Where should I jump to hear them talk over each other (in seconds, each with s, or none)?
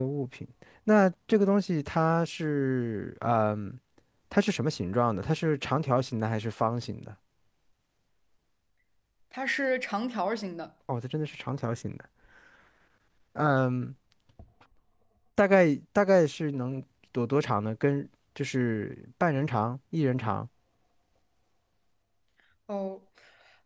none